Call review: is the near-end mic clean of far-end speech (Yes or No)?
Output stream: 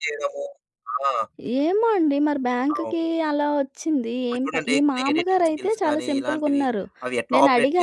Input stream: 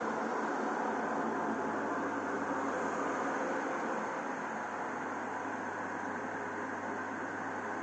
Yes